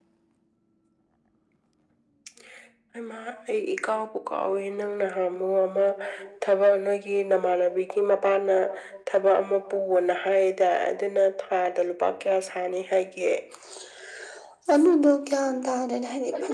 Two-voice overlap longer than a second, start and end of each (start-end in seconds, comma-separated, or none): none